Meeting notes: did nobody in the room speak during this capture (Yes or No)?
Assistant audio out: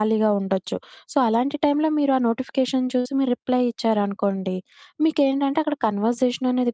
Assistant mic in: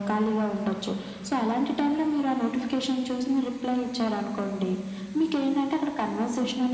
Yes